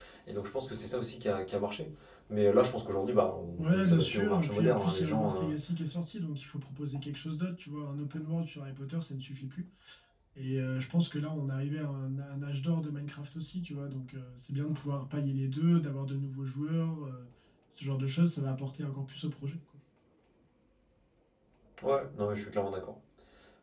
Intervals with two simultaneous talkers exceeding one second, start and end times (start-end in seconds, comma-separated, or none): 3.6-5.5